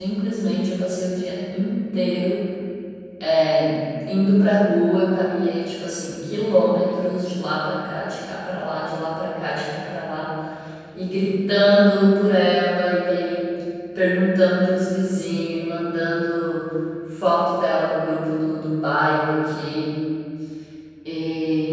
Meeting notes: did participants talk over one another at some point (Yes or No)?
No